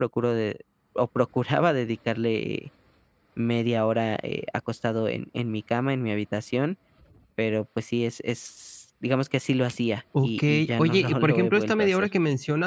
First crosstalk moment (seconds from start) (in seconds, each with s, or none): 10.1 s